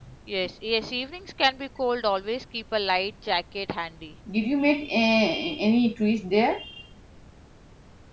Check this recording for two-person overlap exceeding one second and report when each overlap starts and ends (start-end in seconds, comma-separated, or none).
none